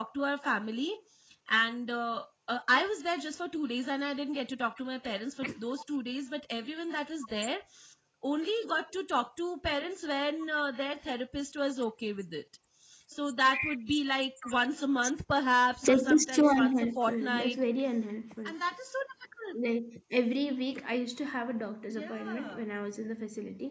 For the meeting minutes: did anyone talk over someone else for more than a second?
Yes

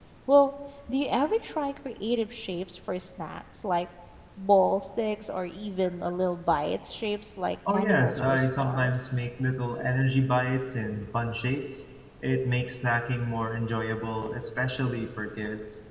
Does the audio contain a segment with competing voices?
Yes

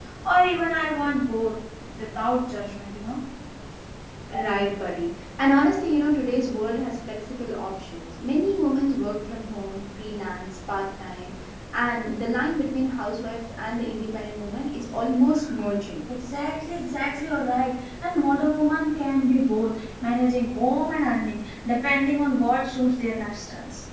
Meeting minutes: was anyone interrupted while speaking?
No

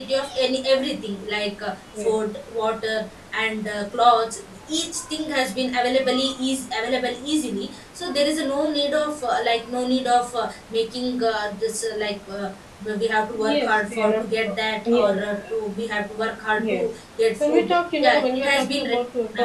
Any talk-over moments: Yes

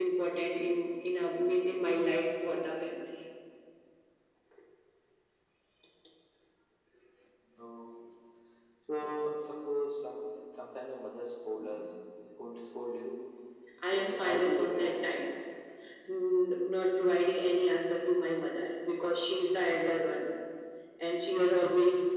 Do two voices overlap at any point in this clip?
Yes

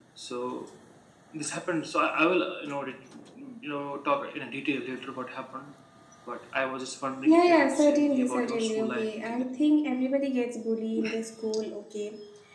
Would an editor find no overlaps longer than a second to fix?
No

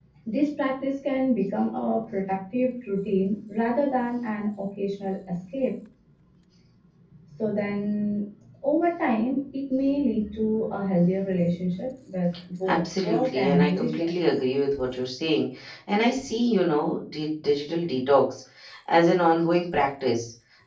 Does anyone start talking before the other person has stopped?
Yes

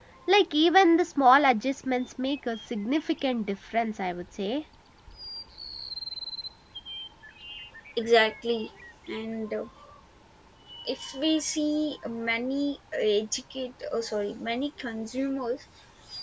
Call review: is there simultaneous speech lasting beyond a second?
No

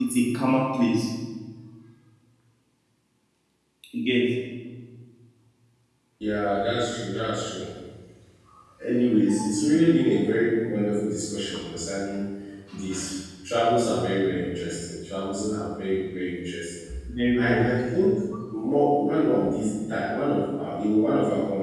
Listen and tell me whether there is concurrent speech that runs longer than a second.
No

